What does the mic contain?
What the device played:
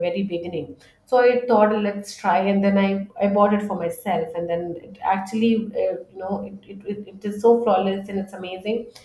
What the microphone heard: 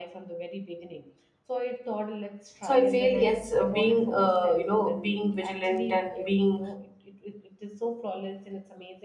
both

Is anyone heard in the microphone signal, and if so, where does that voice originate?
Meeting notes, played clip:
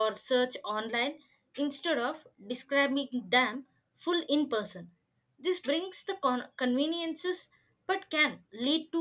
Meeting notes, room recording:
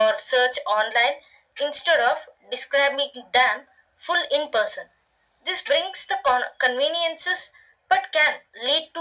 echo only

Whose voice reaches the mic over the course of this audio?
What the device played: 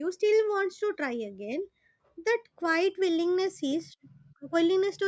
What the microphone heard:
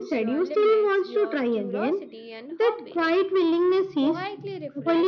both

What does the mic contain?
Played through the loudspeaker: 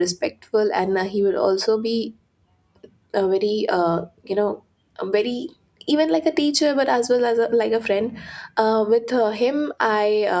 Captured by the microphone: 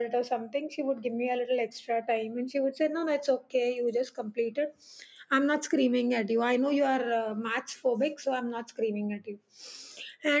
user only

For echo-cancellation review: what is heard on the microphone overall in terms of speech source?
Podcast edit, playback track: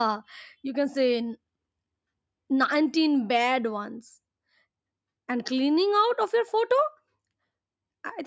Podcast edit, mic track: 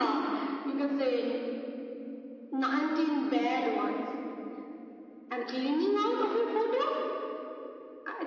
echo only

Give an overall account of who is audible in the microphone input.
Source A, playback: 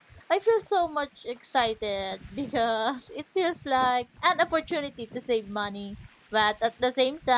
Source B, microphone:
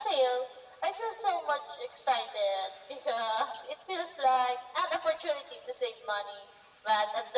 echo only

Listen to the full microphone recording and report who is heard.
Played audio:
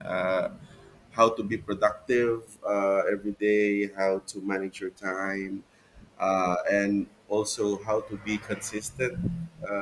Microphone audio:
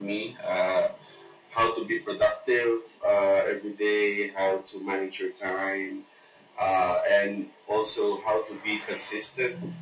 echo only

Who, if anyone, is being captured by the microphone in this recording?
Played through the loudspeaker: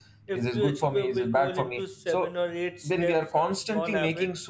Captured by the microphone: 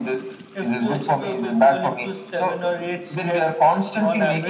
echo only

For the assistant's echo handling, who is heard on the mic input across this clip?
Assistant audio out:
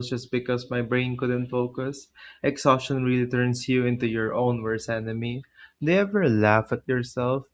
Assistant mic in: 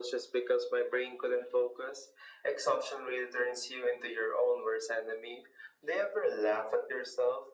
echo only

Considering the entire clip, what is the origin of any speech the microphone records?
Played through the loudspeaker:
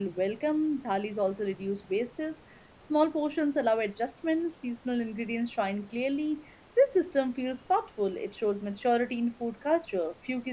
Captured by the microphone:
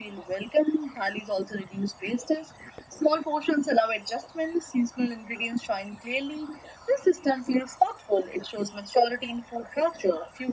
echo only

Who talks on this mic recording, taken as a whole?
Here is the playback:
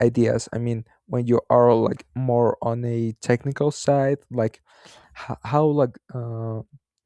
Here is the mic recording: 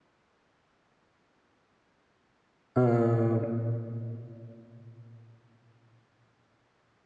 user only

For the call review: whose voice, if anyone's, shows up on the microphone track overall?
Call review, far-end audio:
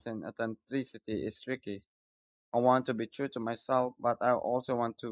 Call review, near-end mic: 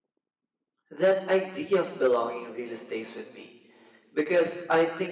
user only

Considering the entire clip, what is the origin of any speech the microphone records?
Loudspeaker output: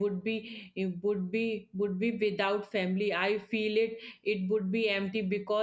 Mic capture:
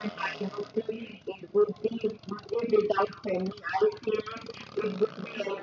echo only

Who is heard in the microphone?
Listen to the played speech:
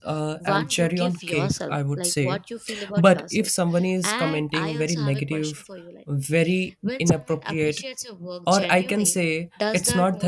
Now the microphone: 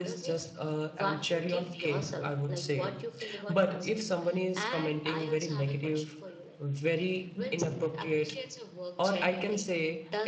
echo only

